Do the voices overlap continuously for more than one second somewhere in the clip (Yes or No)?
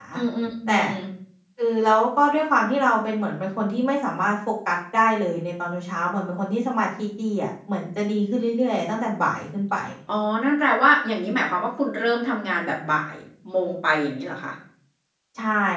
No